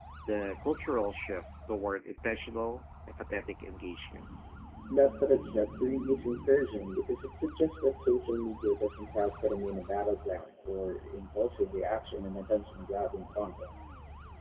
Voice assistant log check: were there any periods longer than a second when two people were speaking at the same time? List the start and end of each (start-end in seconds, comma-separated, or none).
none